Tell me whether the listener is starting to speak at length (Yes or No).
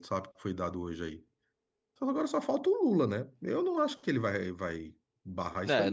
Yes